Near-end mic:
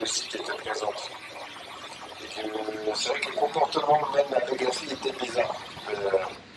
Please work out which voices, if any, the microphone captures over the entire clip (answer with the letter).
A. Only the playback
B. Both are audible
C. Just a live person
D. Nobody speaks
A